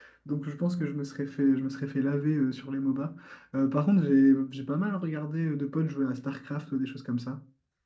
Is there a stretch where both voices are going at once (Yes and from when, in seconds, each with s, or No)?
No